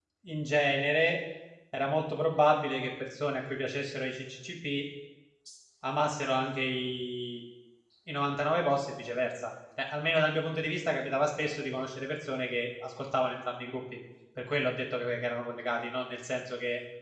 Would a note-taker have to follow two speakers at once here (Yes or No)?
No